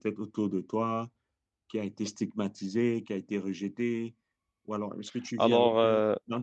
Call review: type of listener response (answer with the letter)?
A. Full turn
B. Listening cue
B